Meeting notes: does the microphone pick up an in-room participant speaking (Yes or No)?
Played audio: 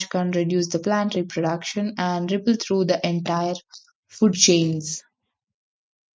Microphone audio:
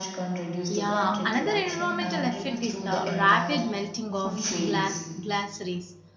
Yes